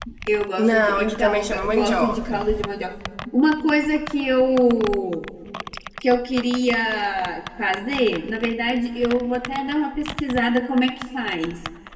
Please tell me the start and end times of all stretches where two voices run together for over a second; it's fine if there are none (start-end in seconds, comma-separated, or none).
0.6-2.5